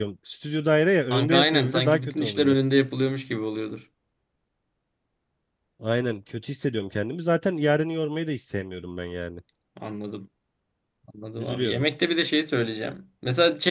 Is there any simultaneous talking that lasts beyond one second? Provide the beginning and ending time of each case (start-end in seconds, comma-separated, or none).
1.1-2.5